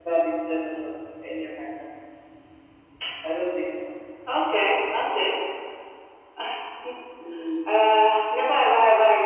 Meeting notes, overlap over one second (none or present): none